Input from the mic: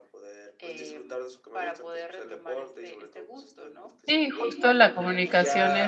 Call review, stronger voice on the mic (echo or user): user